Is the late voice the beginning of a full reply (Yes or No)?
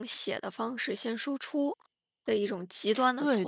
Yes